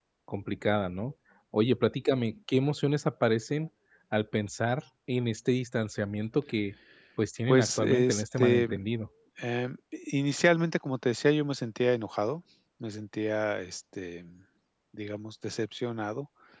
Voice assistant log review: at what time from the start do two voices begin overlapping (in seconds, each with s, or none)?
7.5 s